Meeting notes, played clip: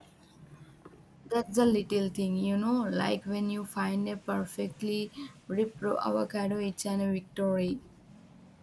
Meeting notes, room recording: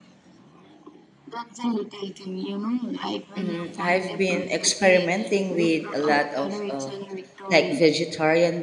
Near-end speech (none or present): present